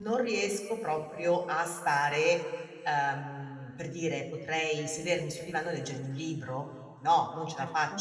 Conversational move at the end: listening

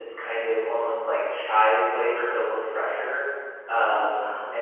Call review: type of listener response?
listening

